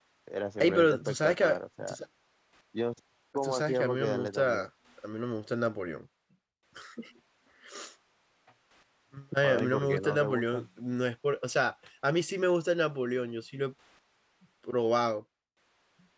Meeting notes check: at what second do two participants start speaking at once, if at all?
0.6 s

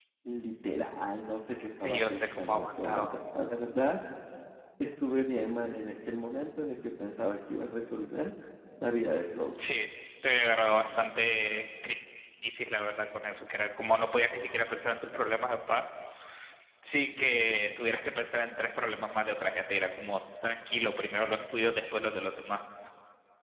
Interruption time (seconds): 1.8 s

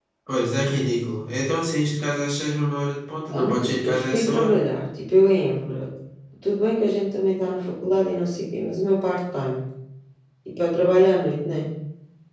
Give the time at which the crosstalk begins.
3.3 s

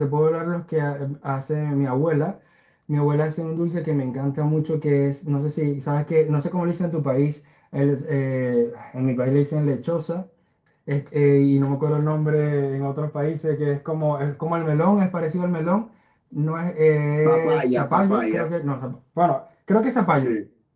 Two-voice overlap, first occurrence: 17.2 s

